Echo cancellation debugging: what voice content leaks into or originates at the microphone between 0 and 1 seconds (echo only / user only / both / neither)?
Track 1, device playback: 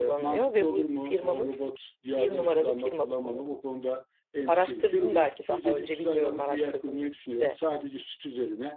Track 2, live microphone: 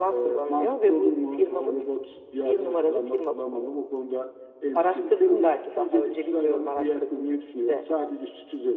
echo only